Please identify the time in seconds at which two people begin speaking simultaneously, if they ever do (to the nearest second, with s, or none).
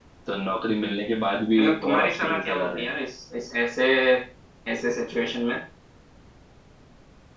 2 s